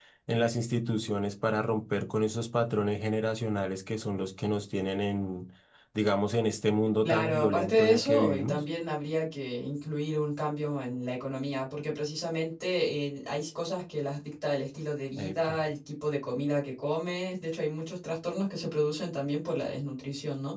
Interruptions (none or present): present